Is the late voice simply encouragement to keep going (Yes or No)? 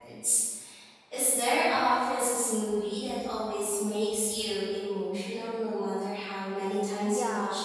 No